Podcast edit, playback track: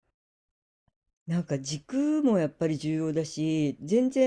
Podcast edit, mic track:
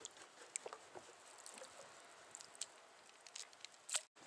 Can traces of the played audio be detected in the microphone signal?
No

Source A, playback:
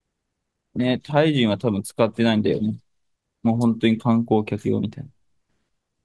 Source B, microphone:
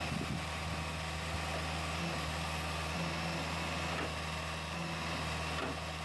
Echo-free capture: Yes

